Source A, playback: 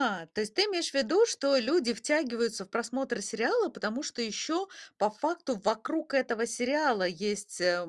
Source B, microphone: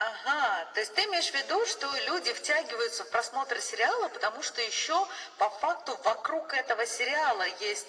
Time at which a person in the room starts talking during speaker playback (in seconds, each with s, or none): none